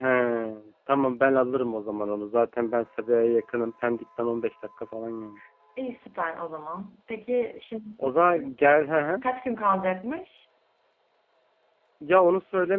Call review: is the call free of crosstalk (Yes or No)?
Yes